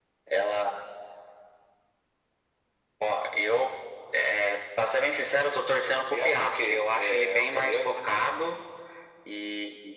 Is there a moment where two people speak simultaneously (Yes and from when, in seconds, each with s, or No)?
Yes, from 6.1 s